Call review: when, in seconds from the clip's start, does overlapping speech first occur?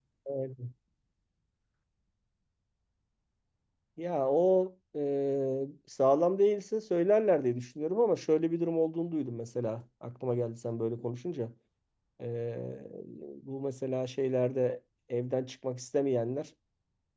none

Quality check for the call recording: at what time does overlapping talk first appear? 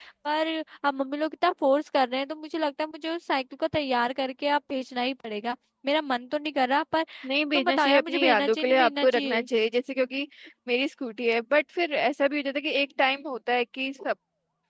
7.6 s

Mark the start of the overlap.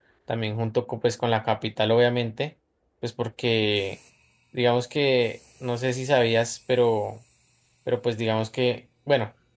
none

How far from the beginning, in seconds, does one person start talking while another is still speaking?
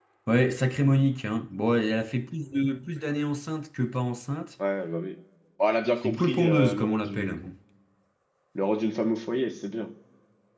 6.0 s

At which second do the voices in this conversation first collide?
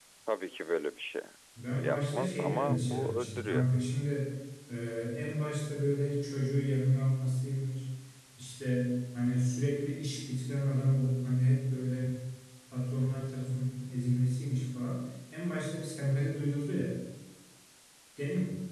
1.8 s

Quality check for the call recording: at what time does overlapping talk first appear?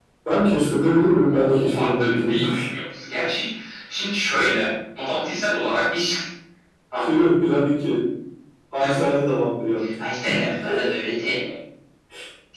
1.3 s

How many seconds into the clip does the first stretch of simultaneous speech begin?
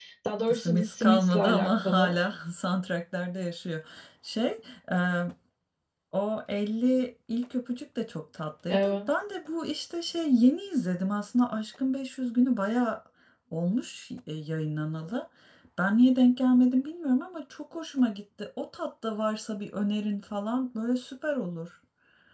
0.5 s

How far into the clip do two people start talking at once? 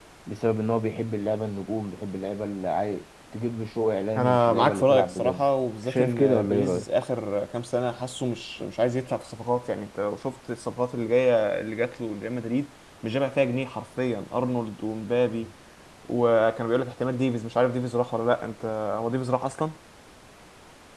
4.2 s

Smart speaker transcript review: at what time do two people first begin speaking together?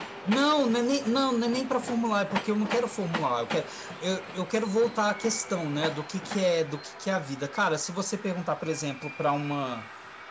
none

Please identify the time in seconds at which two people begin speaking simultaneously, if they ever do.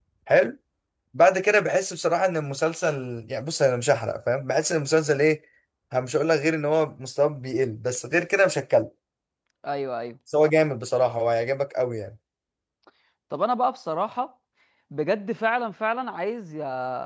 none

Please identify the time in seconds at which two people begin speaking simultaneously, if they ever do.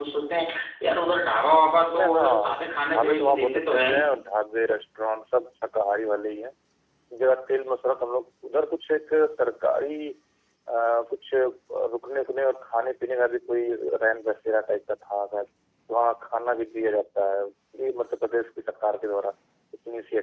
1.9 s

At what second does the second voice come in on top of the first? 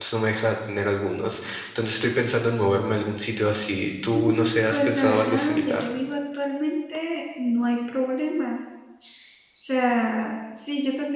4.1 s

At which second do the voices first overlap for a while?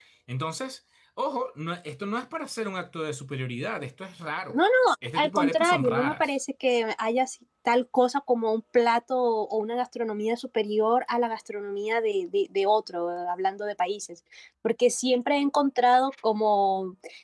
5.2 s

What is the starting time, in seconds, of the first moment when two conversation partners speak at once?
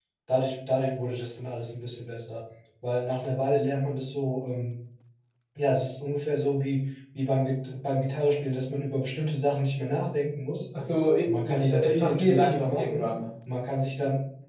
11.2 s

